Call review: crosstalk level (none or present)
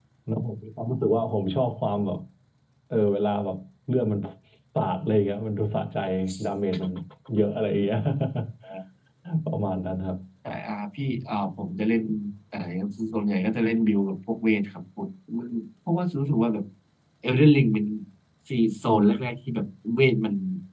none